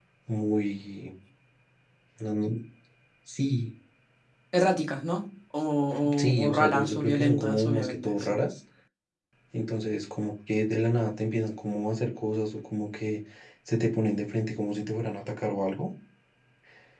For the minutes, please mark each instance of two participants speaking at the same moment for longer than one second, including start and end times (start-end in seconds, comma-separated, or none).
6.3-8.4